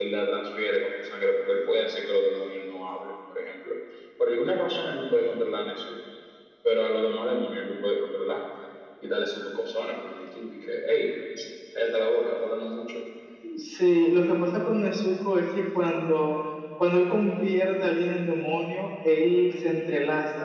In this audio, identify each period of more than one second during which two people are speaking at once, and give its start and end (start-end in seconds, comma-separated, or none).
none